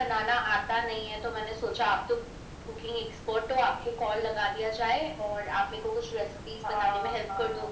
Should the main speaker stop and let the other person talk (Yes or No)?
Yes